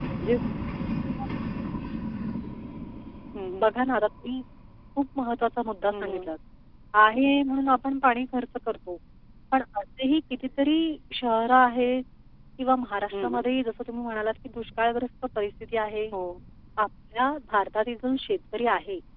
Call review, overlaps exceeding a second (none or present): none